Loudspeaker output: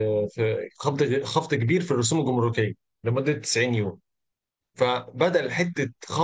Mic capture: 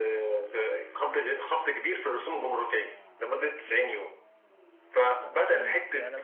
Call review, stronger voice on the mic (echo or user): echo